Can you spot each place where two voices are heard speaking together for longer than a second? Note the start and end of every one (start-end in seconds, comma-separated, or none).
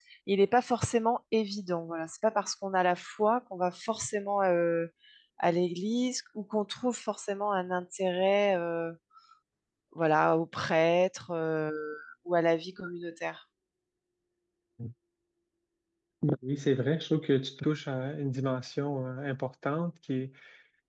none